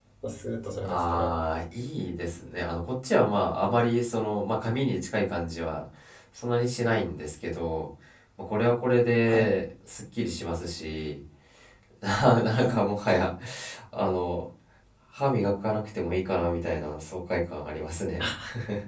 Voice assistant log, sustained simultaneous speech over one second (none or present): none